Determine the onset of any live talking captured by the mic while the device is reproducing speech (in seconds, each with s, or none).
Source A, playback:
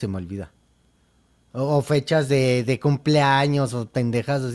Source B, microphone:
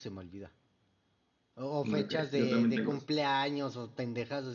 1.8 s